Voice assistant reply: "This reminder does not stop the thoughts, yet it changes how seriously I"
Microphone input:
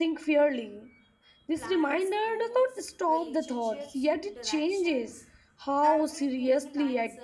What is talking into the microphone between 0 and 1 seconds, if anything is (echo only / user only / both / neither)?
echo only